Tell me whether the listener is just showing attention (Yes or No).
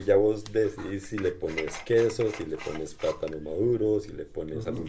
No